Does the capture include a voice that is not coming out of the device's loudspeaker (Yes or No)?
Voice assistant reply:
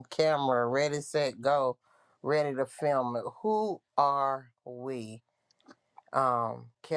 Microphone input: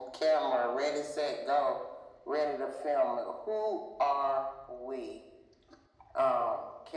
No